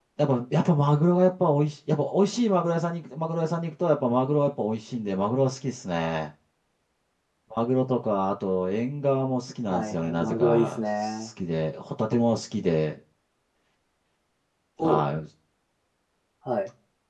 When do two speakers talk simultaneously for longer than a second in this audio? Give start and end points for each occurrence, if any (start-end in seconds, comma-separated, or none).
9.7-11.3